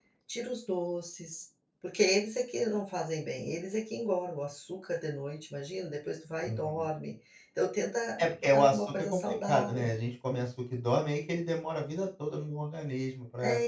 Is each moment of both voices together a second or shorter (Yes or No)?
No